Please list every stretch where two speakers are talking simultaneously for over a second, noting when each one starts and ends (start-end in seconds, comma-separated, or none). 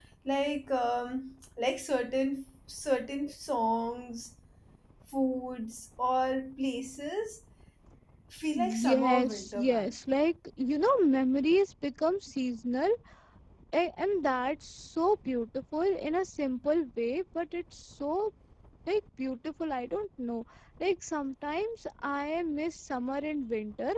8.6-10.0